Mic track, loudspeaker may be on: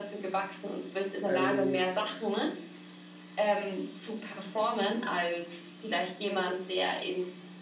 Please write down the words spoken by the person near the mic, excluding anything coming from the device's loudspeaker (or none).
weil du